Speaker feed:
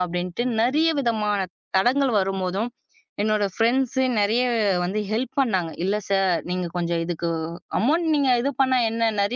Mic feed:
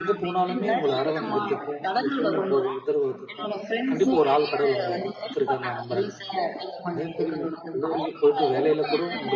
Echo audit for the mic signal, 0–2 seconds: both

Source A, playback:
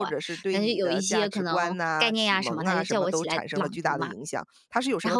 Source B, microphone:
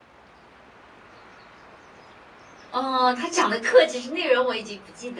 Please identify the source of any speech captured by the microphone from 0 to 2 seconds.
neither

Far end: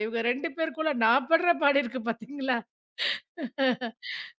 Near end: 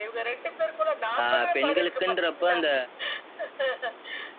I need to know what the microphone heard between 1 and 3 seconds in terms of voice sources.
both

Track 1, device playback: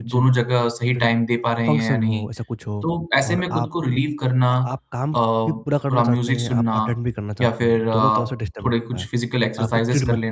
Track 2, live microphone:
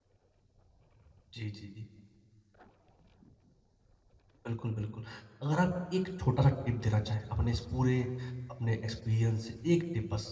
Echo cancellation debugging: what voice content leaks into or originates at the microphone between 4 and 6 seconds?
user only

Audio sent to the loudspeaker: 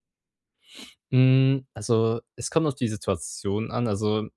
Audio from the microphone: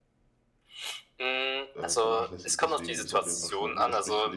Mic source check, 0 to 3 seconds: both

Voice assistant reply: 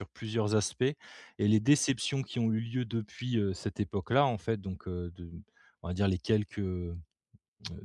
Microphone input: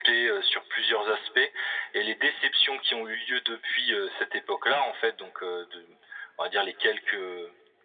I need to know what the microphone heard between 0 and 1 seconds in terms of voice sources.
echo only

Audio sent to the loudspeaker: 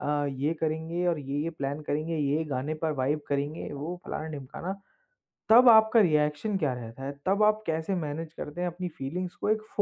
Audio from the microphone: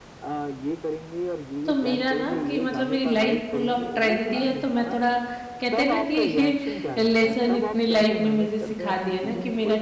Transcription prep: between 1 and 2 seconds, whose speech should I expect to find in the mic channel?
both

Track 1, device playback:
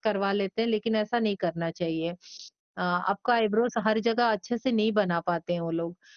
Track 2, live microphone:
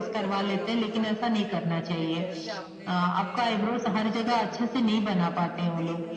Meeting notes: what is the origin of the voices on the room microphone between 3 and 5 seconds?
both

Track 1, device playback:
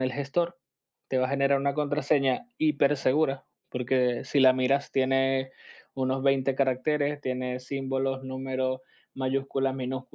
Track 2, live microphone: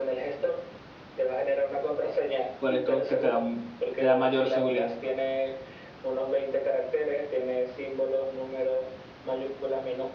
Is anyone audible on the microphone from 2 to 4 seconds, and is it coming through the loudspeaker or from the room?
both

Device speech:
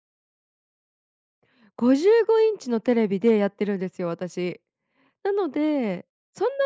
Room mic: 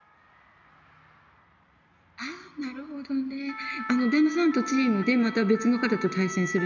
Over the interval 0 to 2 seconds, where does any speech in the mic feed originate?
neither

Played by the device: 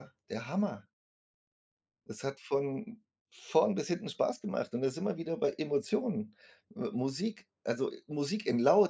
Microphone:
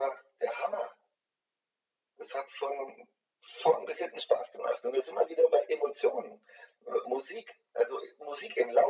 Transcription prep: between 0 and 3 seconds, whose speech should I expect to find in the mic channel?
echo only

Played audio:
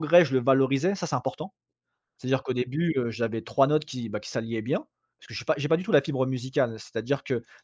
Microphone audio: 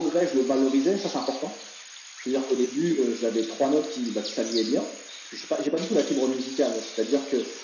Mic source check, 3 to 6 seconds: echo only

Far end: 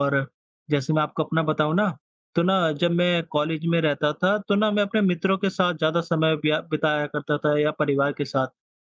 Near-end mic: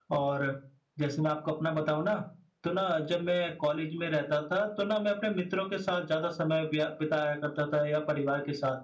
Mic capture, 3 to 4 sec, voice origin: echo only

